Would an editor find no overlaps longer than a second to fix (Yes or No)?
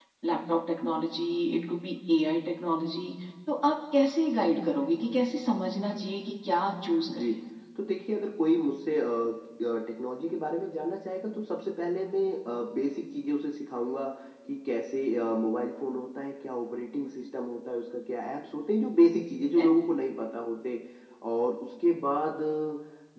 Yes